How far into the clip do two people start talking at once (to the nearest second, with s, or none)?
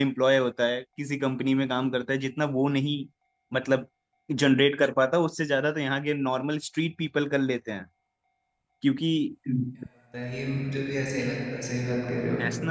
none